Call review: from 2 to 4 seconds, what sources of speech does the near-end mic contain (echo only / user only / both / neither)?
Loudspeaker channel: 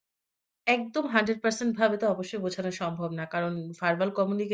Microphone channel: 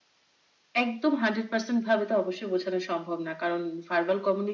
echo only